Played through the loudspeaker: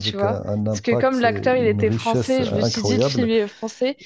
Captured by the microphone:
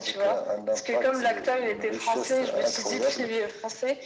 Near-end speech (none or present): none